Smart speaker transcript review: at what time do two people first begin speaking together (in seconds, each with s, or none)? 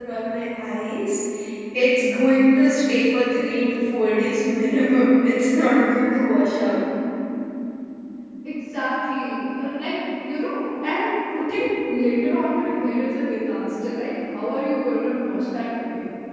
none